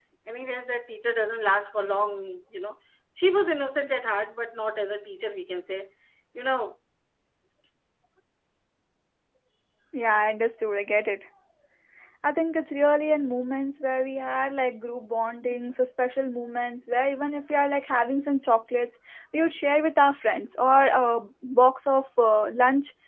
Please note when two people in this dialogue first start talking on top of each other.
none

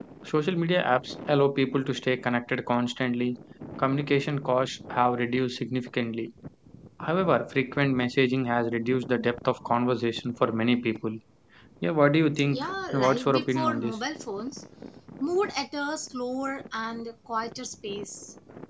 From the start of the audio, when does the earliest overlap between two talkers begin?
12.5 s

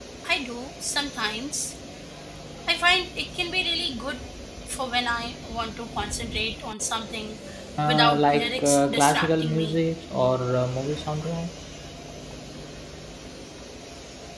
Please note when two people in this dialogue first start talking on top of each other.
7.9 s

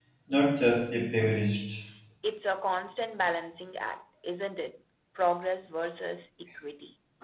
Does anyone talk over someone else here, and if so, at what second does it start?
none

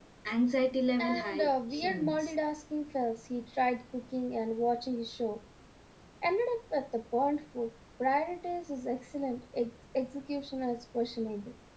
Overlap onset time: 1.0 s

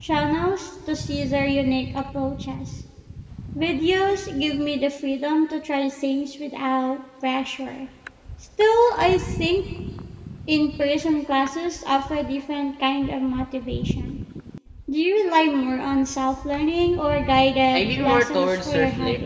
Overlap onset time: 17.7 s

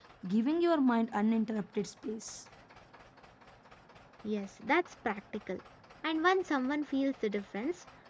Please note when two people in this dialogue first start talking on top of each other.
none

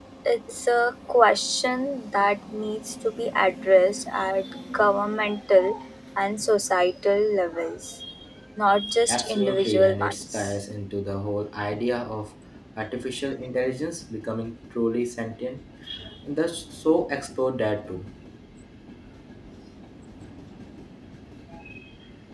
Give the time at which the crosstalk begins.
9.1 s

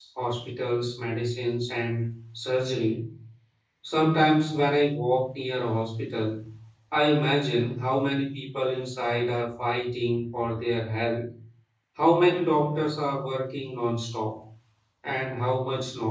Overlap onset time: none

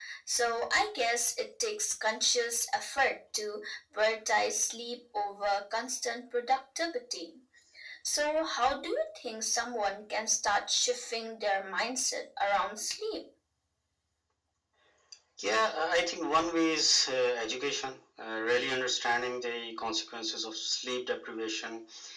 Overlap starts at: none

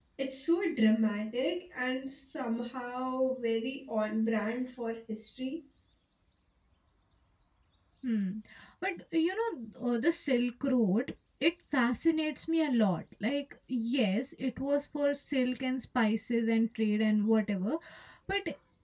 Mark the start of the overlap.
none

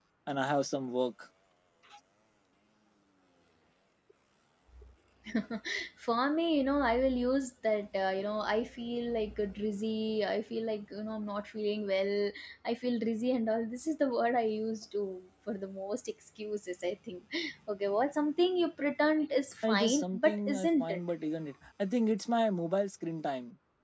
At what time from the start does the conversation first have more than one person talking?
19.6 s

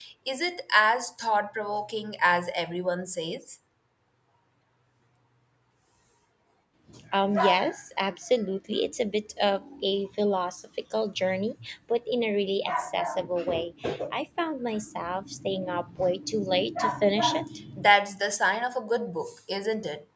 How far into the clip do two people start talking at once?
none

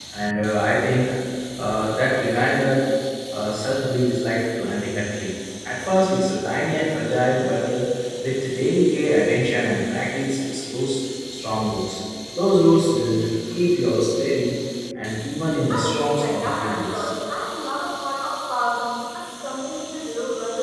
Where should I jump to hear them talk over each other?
15.7 s

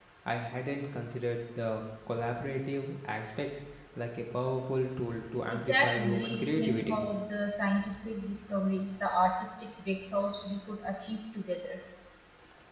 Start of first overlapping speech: 5.5 s

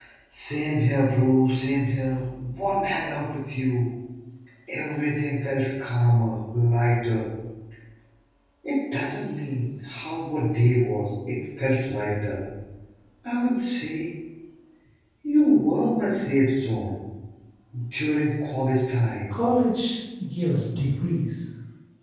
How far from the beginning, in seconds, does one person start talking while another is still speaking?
none

